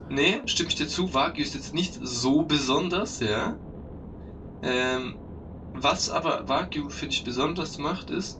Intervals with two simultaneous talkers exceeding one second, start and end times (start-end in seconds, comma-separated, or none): none